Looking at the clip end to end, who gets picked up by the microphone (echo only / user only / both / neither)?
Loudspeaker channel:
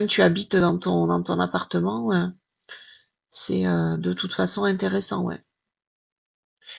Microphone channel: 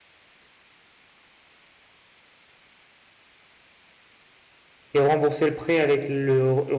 user only